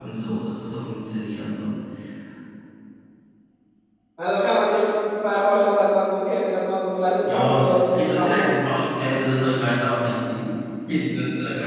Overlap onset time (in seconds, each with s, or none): 7.2 s